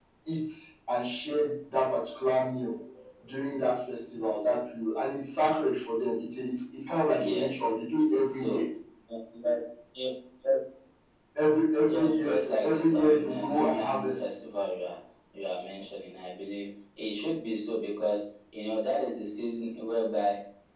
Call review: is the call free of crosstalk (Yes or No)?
No